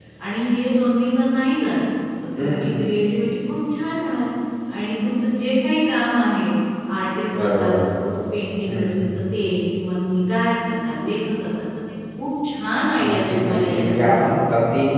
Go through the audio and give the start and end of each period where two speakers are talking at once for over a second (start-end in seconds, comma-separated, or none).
13.1-14.3